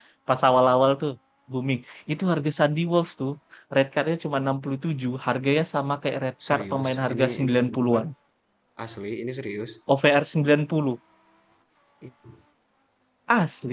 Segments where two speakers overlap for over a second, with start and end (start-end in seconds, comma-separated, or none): 6.5-8.0